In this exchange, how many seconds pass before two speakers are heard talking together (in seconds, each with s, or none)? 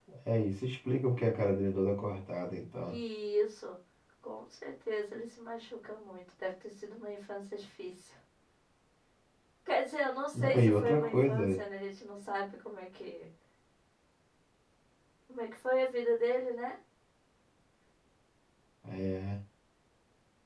10.3 s